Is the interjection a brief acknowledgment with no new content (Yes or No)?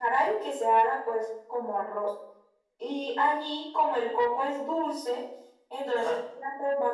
Yes